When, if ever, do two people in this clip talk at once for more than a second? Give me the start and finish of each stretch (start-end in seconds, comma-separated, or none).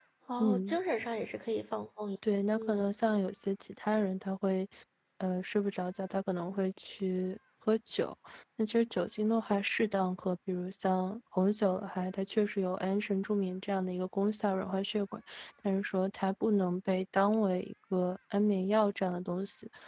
none